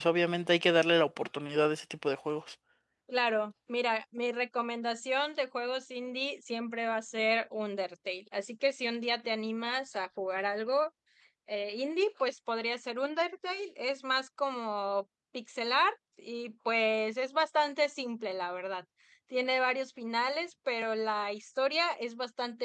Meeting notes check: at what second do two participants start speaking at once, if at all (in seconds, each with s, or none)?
none